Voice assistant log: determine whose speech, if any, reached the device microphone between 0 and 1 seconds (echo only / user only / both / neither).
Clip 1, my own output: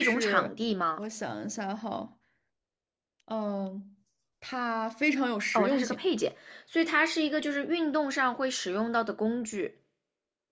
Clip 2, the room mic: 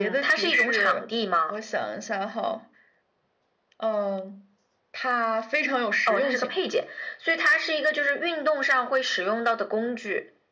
echo only